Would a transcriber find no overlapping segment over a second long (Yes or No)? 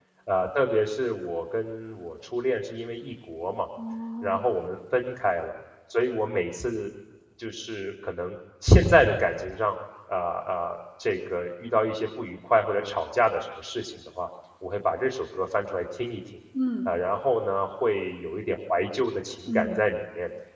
Yes